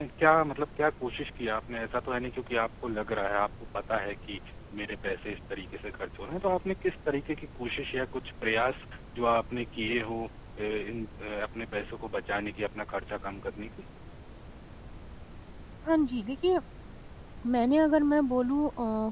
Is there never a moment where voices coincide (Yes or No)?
Yes